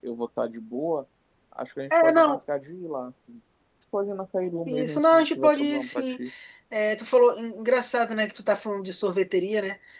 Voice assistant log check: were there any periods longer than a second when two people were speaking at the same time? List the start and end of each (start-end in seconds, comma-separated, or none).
4.7-6.2